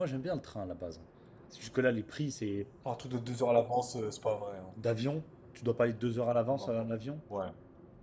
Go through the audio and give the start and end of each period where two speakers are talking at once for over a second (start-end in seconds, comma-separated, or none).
none